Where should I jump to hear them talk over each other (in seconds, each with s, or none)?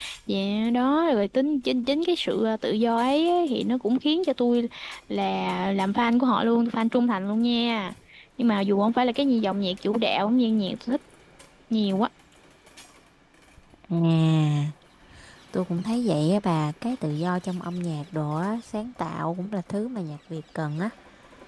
none